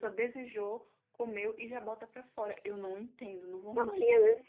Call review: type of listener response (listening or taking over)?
taking over